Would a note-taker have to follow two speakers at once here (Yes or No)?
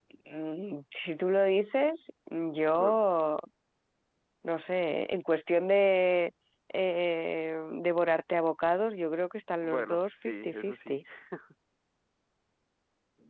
Yes